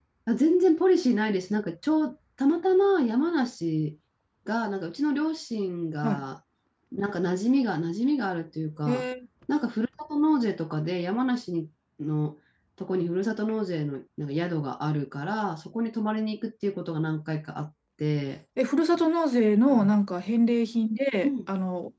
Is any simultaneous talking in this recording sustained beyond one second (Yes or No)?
No